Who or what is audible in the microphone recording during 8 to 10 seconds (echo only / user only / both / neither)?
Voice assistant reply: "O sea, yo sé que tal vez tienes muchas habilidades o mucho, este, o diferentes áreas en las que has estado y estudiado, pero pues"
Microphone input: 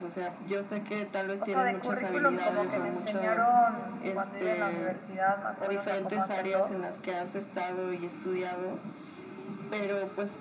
echo only